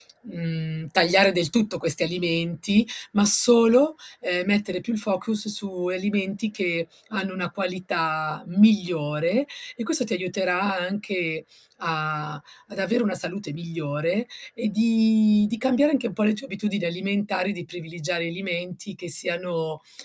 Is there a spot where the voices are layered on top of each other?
No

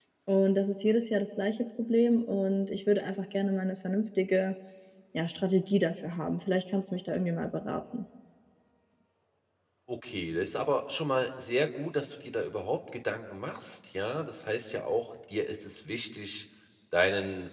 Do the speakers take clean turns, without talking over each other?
Yes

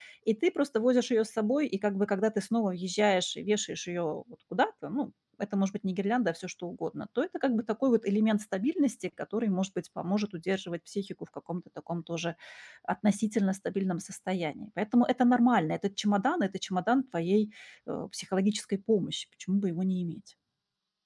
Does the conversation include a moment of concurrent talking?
No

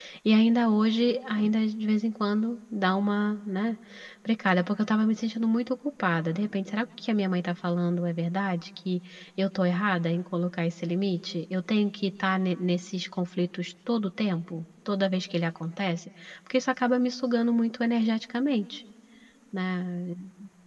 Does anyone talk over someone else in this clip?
No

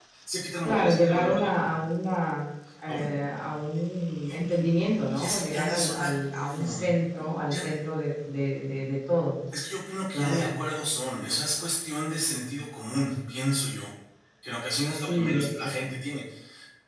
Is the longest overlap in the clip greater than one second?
Yes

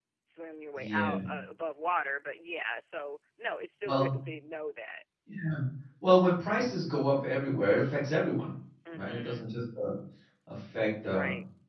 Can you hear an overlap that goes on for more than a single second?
No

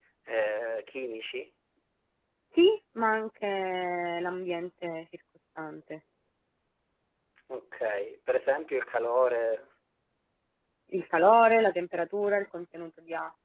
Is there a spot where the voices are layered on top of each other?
No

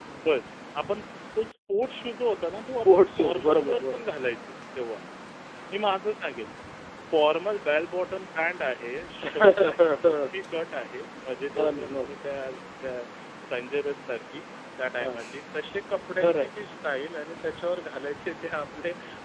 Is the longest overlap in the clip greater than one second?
Yes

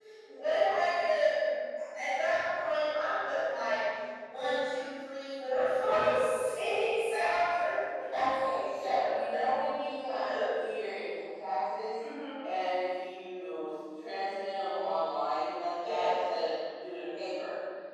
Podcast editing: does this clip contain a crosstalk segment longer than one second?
No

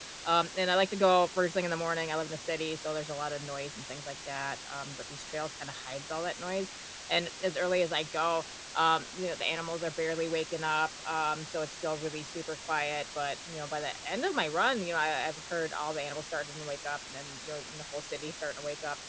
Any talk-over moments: No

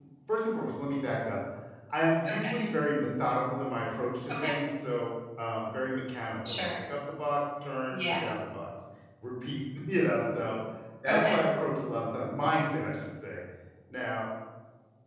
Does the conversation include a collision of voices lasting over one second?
No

